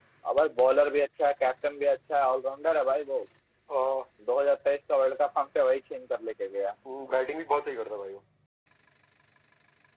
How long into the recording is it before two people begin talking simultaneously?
none

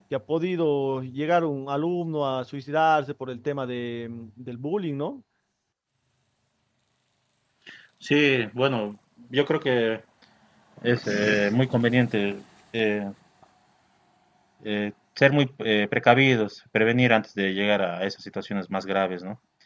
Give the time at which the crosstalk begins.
none

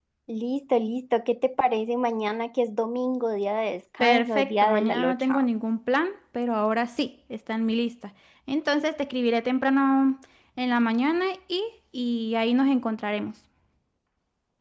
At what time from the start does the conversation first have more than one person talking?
4.0 s

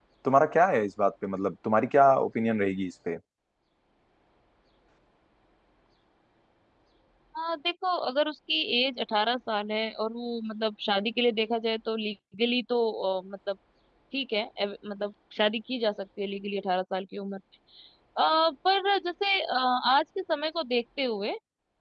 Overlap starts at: none

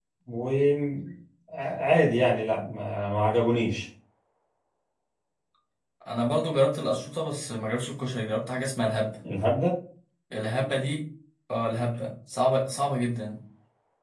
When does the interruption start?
none

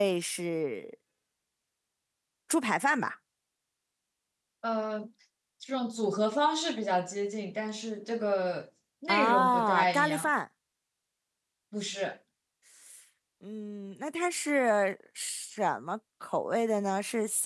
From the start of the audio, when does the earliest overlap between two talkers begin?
9.1 s

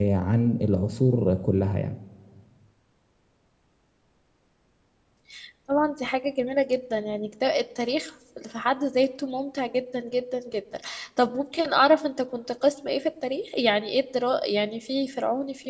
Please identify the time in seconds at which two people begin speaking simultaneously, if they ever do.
none

